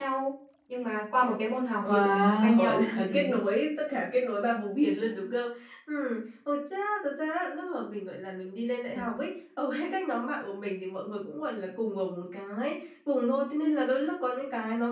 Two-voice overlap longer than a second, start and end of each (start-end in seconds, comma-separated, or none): 1.9-3.4